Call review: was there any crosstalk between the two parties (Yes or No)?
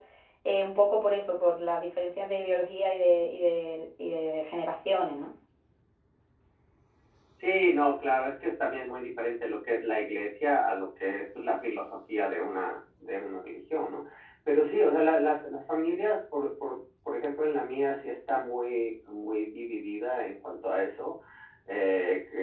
No